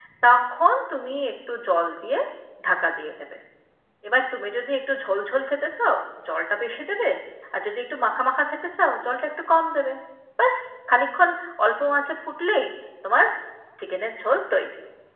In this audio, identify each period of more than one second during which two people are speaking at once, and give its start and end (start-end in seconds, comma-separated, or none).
none